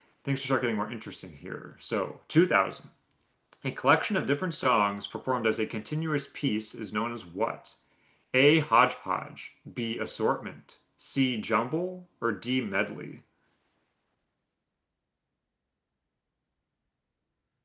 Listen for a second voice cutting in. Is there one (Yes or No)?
No